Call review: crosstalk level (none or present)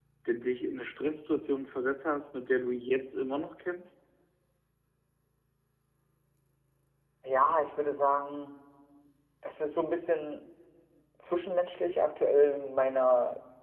none